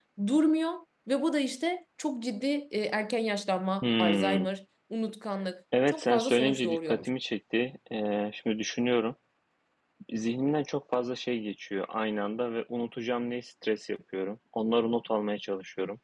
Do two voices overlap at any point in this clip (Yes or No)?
Yes